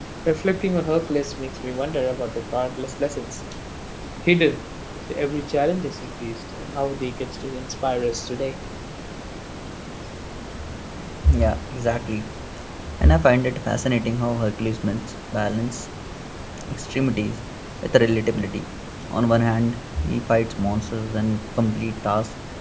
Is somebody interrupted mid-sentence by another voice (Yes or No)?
No